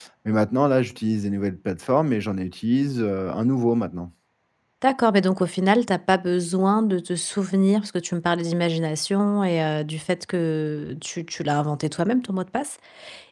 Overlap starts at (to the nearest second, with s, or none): none